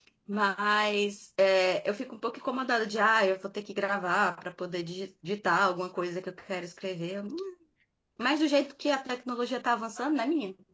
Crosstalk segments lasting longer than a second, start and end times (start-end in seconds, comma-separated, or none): none